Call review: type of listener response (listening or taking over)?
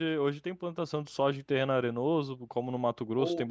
taking over